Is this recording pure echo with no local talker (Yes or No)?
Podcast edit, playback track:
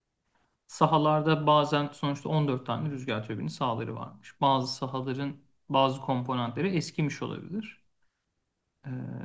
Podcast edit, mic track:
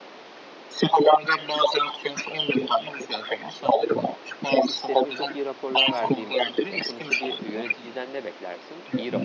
No